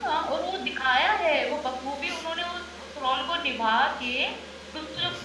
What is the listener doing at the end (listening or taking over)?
listening